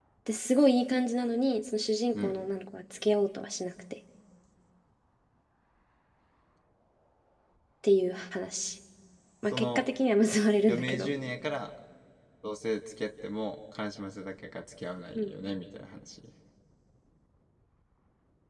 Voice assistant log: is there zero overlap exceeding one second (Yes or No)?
Yes